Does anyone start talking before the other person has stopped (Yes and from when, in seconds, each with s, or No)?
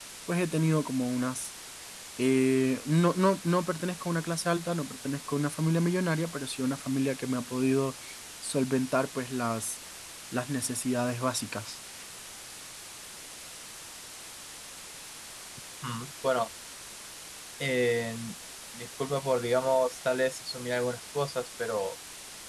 No